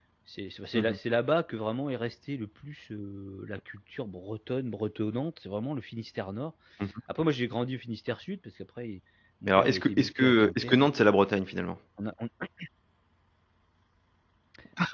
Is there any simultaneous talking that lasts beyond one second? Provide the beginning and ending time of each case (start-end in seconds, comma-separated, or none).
9.5-10.9